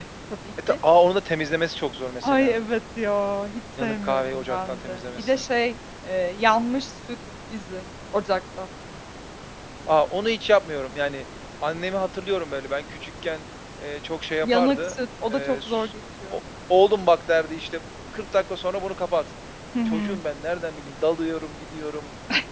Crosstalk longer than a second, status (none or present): present